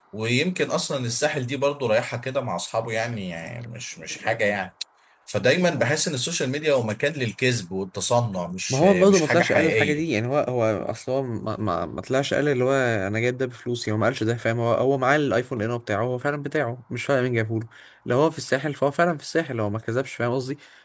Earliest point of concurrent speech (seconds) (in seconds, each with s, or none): 8.7 s